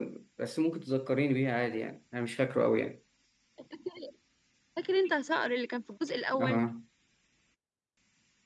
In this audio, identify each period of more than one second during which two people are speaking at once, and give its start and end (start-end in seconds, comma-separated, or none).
none